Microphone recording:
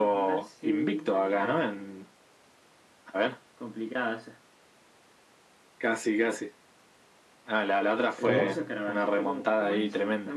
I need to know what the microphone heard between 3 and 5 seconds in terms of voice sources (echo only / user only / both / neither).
echo only